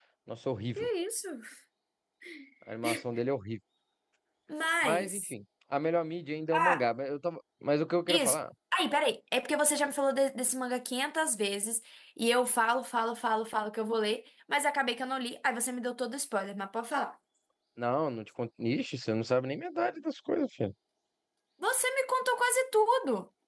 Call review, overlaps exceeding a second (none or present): none